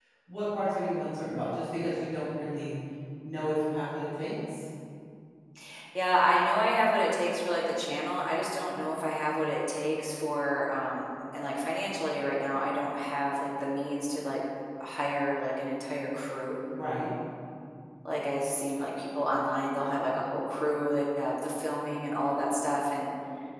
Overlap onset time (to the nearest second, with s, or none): none